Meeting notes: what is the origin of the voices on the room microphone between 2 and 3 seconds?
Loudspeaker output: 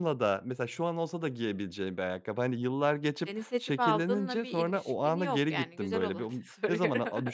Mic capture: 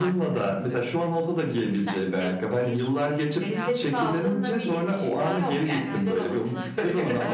both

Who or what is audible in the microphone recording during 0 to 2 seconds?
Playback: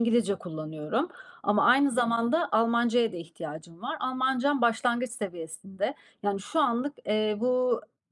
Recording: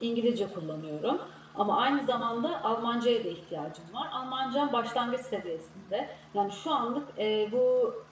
echo only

